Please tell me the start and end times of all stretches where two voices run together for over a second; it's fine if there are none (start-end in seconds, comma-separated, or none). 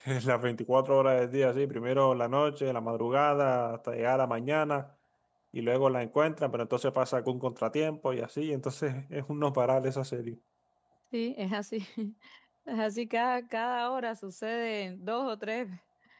none